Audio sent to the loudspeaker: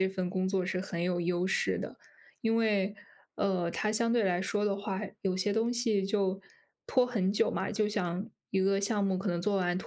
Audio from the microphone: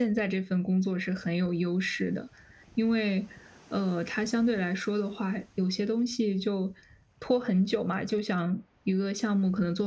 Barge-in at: none

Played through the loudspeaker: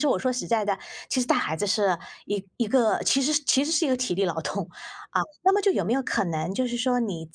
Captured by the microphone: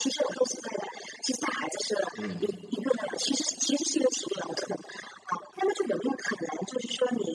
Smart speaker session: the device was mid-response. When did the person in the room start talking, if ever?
2 s

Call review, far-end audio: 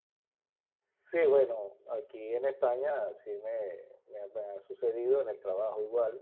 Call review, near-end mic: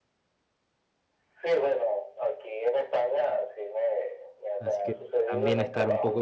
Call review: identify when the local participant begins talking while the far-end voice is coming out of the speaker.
5 s

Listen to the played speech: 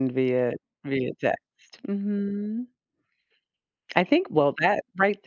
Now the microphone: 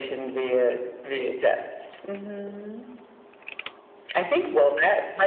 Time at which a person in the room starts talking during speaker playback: none

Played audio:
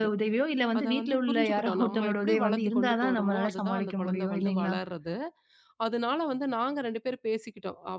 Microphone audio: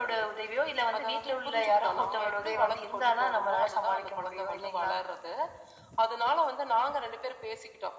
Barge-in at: none

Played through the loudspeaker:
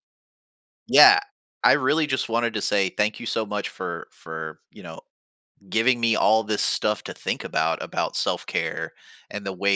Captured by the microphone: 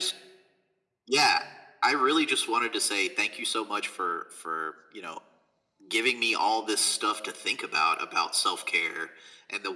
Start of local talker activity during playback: none

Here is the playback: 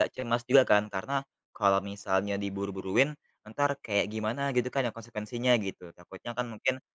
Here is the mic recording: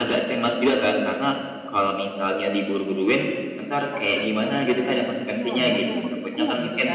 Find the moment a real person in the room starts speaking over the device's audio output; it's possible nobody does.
4 s

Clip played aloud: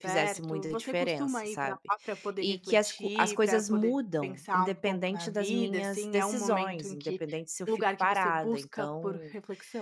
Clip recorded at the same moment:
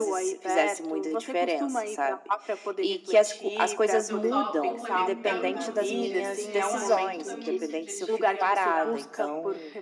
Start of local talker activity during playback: 4 s

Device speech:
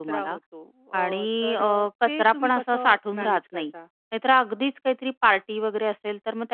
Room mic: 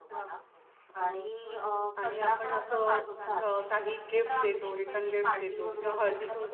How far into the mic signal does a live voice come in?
2 s

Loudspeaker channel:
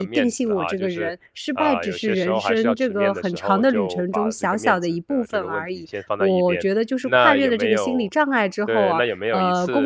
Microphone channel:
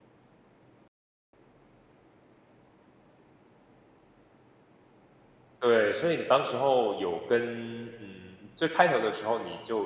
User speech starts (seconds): 6 s

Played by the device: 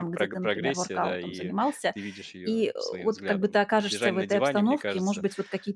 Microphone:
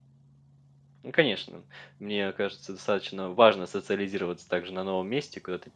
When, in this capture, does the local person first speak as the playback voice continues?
1 s

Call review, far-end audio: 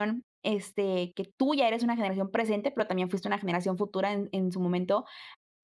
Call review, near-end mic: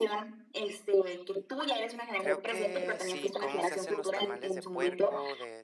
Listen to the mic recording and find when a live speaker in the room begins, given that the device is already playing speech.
2 s

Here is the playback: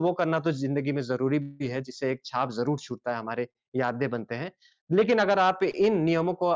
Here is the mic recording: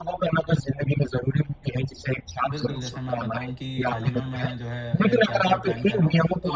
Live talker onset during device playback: 3 s

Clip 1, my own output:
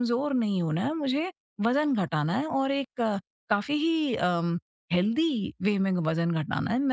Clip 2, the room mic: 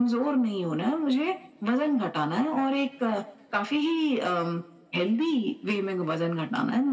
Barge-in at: none

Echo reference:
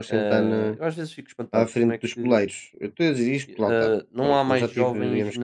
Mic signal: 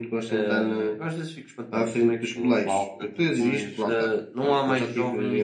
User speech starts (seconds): 2 s

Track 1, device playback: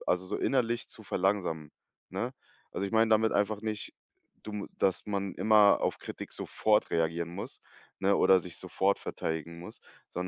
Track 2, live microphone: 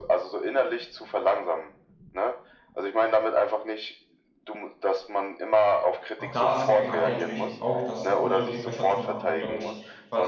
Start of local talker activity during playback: 6 s

